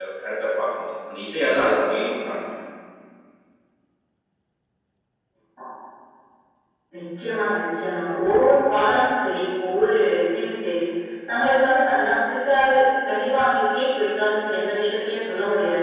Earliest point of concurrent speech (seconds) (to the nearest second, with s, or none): none